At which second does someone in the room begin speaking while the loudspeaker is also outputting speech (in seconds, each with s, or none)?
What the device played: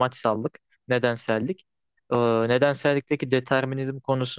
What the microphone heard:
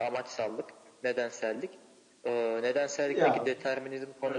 3.1 s